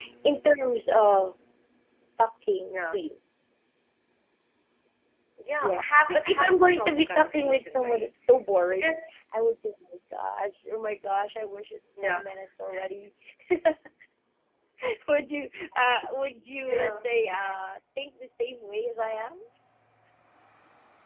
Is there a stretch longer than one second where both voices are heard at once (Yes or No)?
Yes